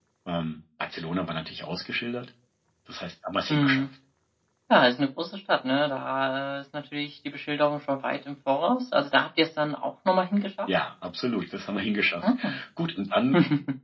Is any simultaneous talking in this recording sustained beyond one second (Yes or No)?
No